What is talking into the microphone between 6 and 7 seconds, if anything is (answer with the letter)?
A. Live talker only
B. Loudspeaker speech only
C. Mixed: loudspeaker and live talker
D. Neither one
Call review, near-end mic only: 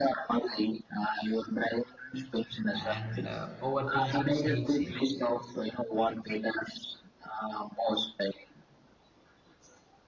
B